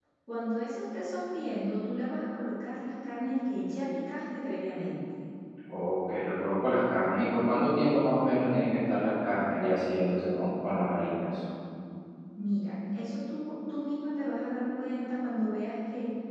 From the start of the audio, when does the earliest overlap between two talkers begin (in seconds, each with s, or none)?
none